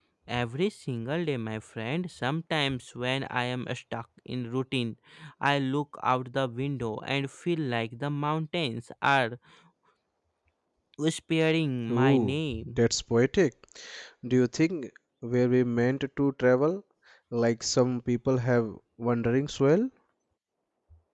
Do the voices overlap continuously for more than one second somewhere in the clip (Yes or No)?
No